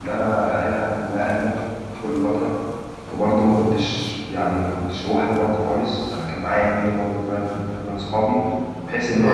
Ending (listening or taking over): taking over